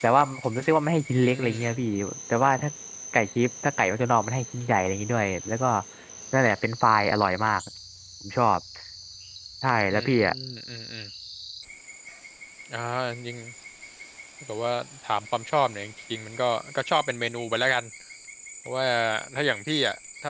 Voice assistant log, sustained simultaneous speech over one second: none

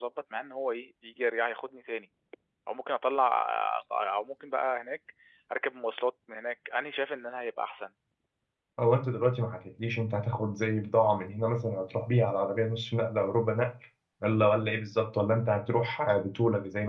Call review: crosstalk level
none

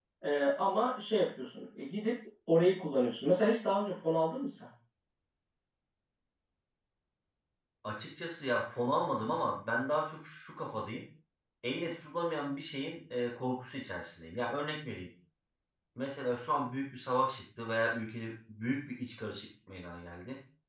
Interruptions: none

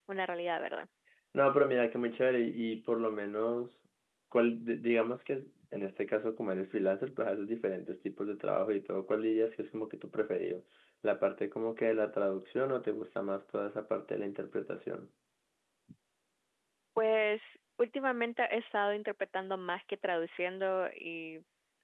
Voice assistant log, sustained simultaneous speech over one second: none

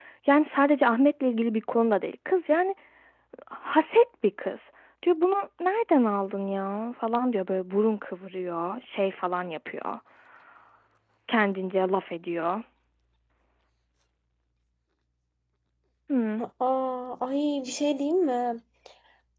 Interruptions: none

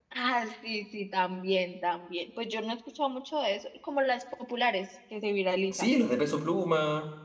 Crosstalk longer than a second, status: none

